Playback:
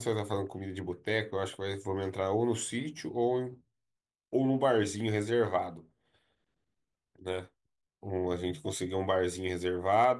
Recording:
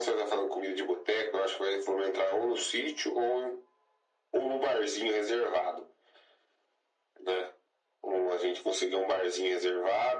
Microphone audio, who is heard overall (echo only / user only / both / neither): echo only